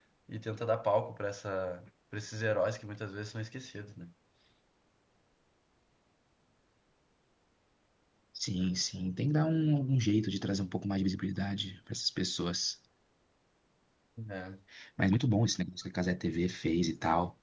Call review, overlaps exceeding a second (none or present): none